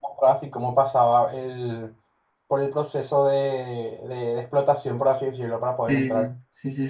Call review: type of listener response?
taking over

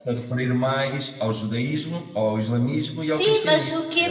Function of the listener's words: taking over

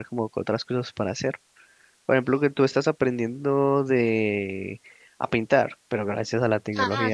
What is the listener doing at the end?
taking over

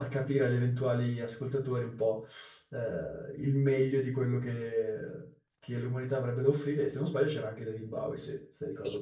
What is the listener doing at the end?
taking over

